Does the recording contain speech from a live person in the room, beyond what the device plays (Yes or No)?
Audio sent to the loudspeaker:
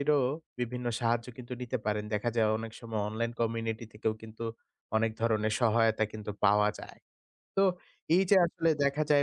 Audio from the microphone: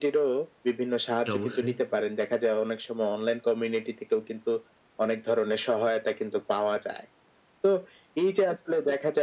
Yes